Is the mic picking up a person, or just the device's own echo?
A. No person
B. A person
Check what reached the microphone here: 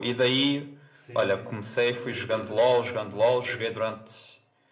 B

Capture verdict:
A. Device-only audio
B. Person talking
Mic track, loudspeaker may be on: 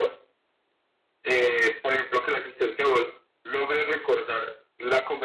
A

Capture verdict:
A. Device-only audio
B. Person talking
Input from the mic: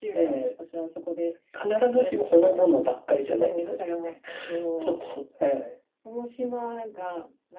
A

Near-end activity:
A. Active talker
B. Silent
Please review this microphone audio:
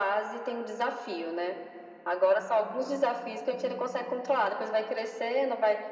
B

